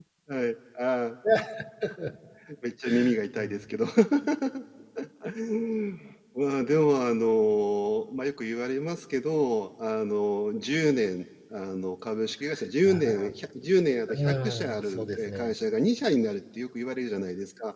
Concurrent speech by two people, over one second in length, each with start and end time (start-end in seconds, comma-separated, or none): 14.2-15.6